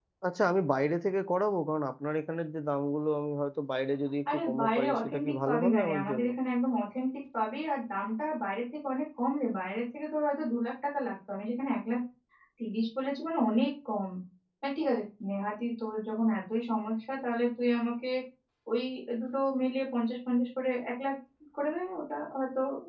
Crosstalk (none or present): present